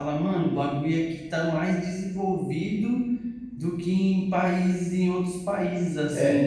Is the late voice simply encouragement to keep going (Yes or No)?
No